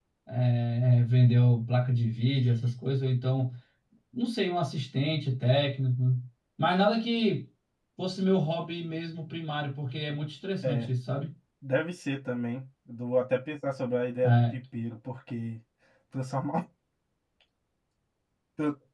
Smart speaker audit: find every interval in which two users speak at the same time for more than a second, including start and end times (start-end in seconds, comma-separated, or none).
none